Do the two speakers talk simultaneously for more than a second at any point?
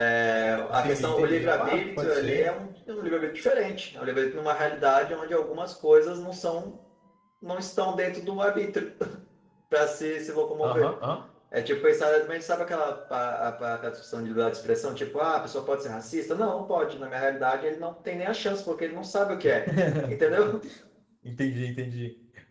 Yes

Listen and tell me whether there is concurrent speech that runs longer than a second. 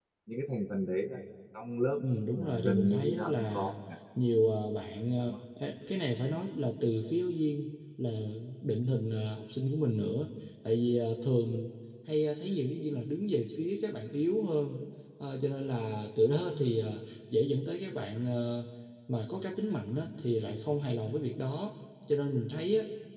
Yes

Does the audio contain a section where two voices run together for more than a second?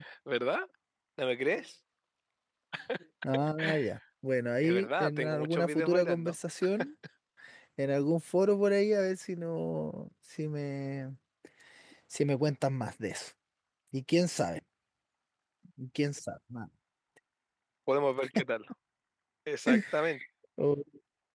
Yes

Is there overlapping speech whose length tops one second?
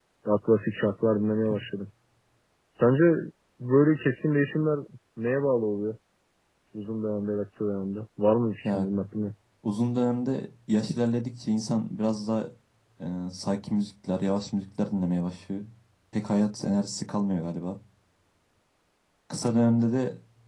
No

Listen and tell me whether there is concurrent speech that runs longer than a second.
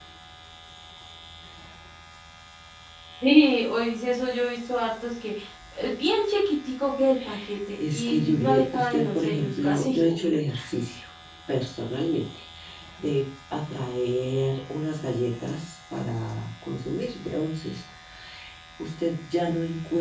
Yes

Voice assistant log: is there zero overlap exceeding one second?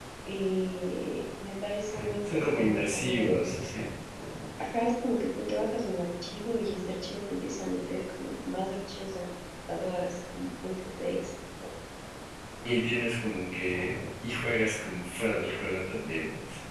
No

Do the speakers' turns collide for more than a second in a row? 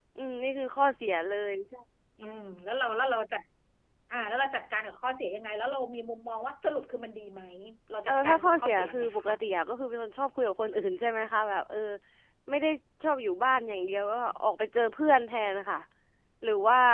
Yes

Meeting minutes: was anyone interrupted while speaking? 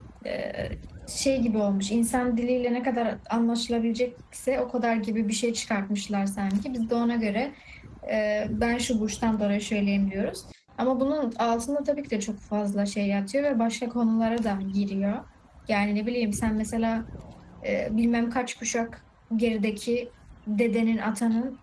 No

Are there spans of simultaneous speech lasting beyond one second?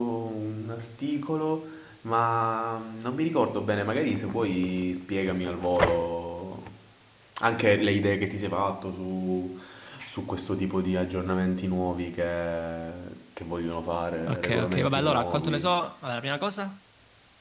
Yes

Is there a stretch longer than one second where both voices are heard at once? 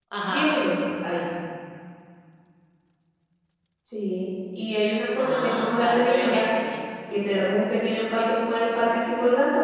Yes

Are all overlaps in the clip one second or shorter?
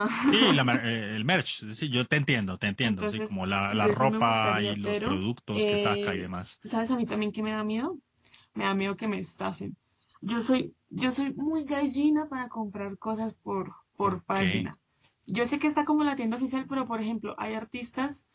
No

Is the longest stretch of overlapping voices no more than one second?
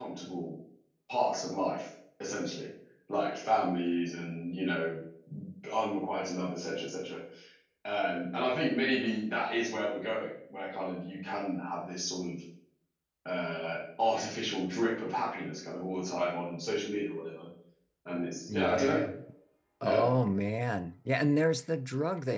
Yes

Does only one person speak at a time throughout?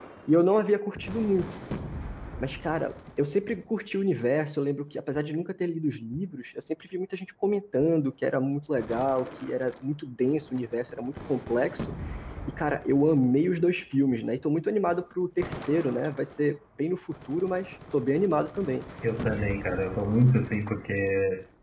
Yes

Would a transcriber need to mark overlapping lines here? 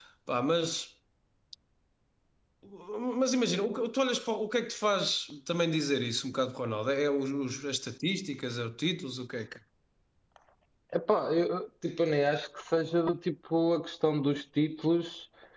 No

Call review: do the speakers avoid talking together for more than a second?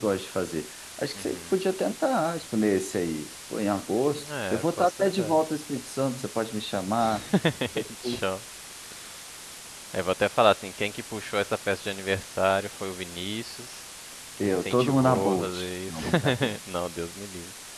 No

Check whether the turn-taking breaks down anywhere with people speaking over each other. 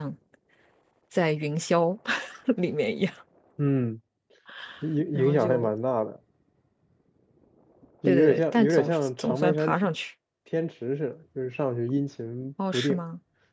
Yes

